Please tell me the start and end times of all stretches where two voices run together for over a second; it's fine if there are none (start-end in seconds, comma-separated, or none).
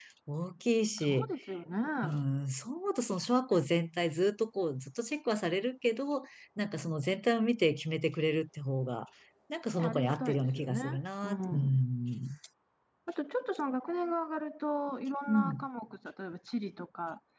9.7-11.8